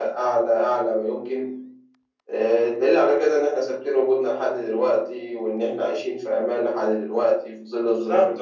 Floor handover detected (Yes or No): Yes